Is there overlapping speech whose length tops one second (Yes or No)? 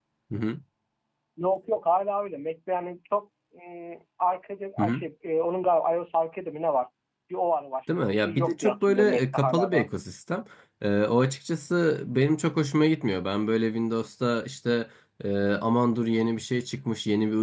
Yes